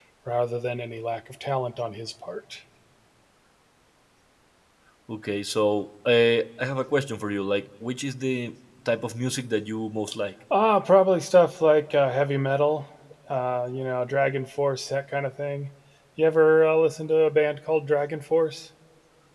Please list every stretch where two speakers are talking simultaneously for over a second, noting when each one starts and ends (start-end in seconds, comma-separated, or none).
none